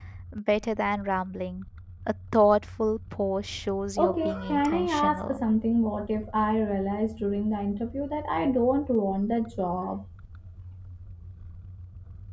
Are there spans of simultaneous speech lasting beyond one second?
Yes, from 4.0 s

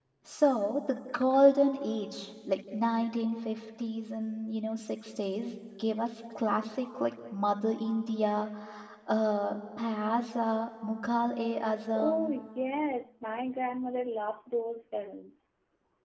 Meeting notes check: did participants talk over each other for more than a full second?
No

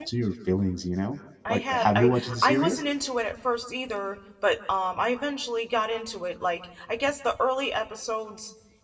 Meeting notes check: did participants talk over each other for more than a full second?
Yes, from 1.4 s

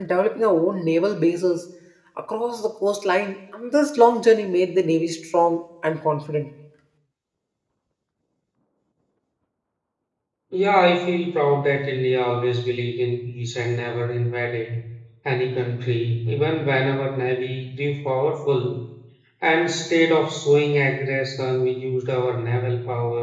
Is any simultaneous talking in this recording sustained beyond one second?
No

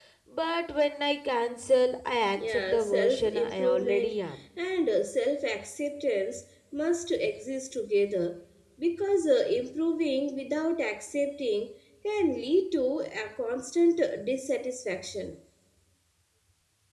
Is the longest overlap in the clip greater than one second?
Yes, from 2.4 s

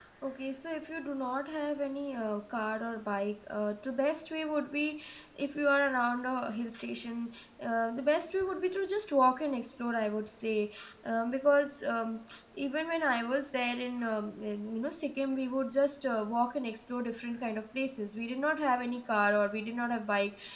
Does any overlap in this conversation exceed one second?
No

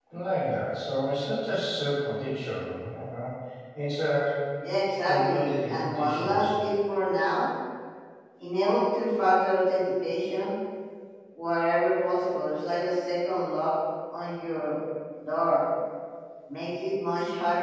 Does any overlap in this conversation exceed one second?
Yes, from 5.0 s

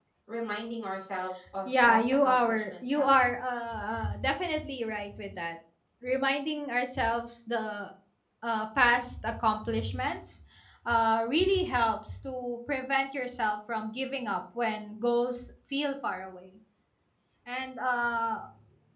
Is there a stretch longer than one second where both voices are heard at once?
Yes, from 1.6 s

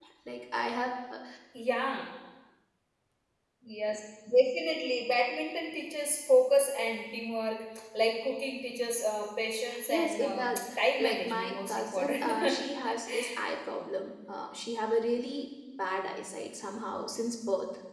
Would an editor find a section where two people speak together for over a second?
Yes, from 9.7 s

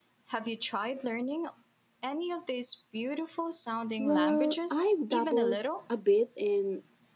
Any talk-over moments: Yes, from 4.0 s

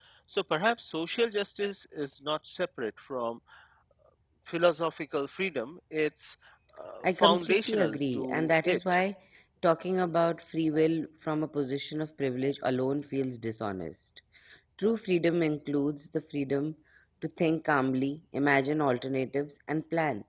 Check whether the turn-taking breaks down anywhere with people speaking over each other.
Yes, from 7.0 s

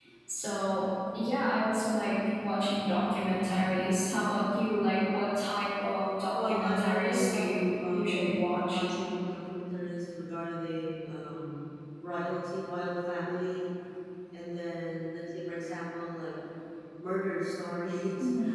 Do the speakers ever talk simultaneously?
Yes, from 6.3 s

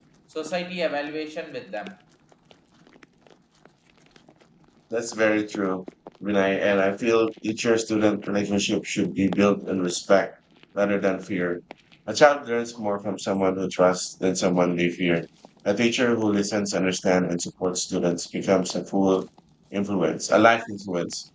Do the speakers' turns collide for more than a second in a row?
No

